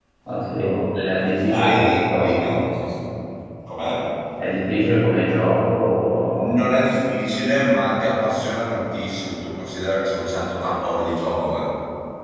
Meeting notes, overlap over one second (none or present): present